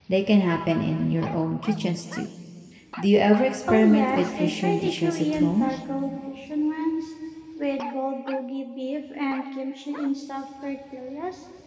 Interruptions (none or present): present